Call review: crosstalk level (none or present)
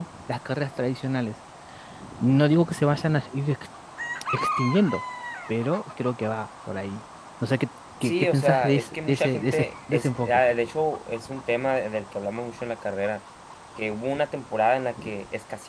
present